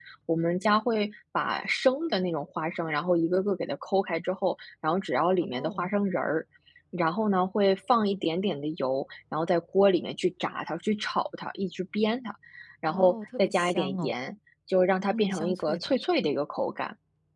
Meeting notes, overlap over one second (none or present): present